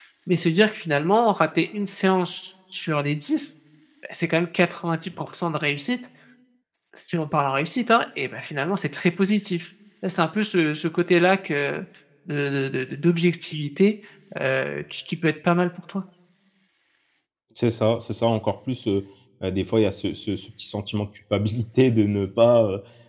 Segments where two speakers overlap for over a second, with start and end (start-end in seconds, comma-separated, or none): none